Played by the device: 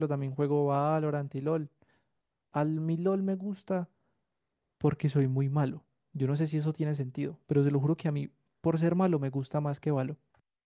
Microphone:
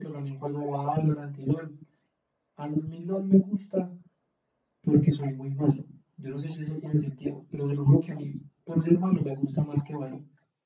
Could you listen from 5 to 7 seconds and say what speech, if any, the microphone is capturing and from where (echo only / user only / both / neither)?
echo only